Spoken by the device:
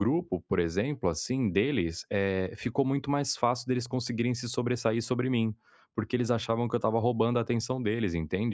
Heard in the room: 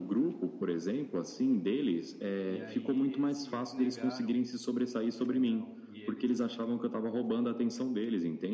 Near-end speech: present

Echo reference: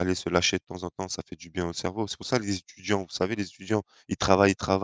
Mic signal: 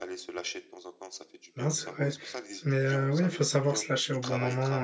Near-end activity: present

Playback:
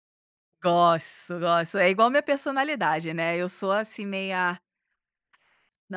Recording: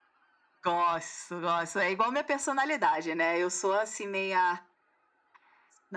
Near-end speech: none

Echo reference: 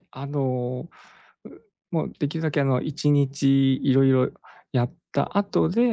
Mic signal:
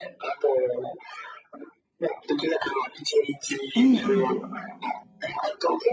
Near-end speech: present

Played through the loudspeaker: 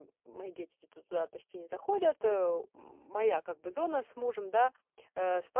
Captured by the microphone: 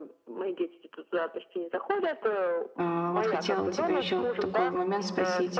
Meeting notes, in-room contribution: present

